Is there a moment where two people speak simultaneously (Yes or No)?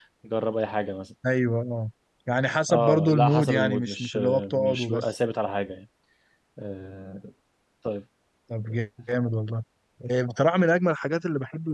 Yes